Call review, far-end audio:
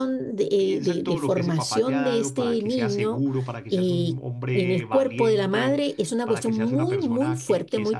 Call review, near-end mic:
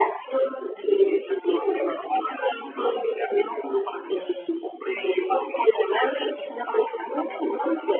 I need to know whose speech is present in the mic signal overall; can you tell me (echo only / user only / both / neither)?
echo only